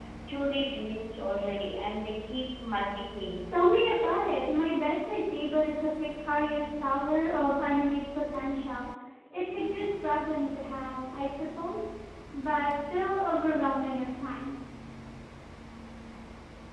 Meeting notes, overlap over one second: none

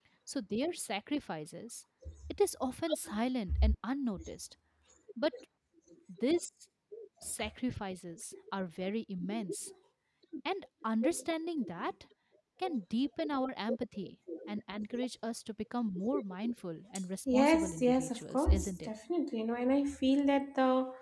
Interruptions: present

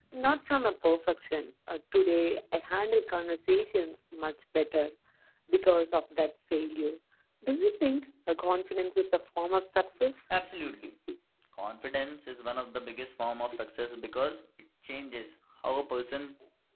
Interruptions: none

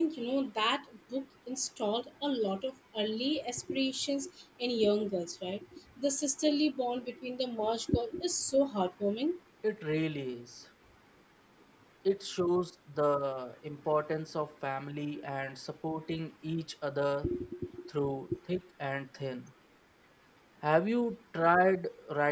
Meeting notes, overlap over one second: none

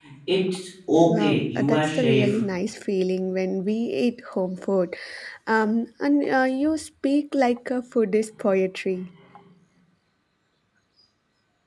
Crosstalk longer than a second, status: present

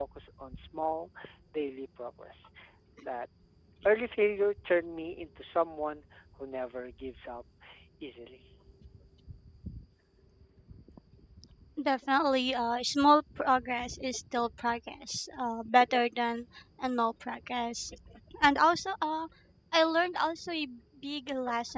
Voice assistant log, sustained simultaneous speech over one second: none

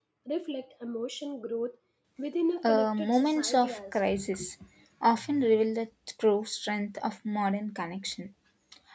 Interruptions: present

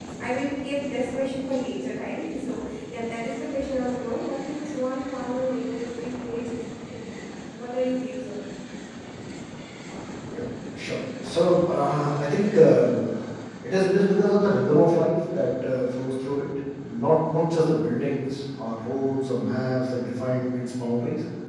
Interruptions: none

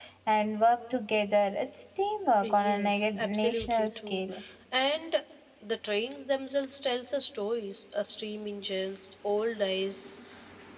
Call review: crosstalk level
present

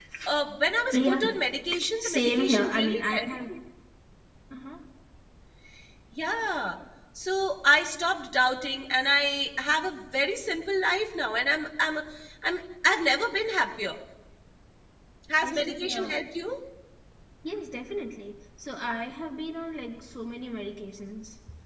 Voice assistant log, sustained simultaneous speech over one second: present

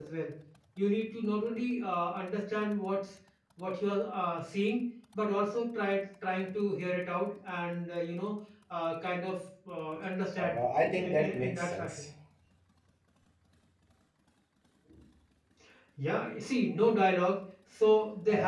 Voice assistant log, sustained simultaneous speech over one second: present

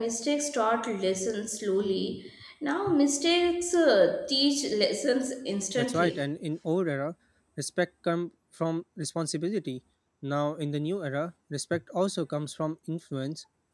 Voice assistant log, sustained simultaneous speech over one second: none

